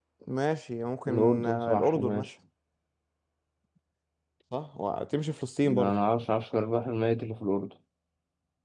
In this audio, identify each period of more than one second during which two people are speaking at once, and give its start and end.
1.1-2.3

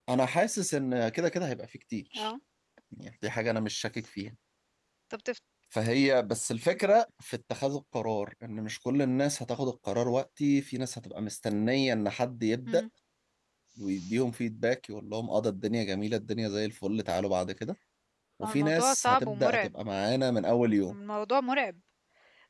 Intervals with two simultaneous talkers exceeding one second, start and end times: 18.4-19.7

